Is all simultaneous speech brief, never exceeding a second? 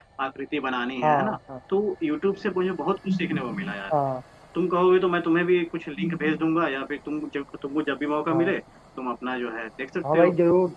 Yes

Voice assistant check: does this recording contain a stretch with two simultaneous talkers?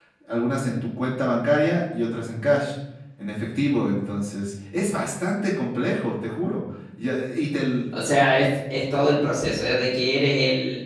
No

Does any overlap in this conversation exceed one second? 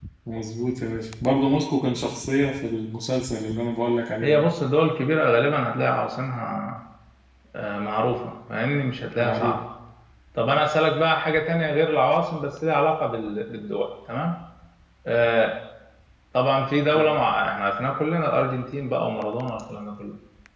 No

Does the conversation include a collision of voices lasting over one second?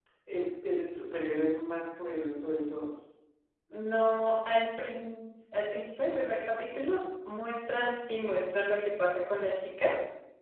No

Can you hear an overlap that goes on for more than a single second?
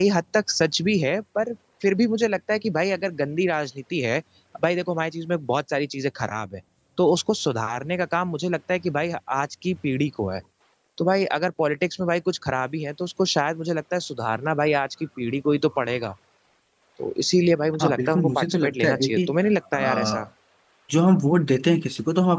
Yes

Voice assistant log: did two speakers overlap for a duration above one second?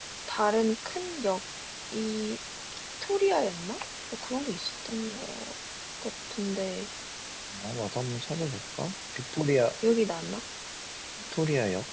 No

